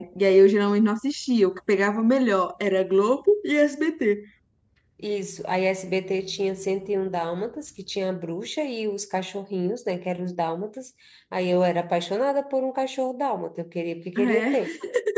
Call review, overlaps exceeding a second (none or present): none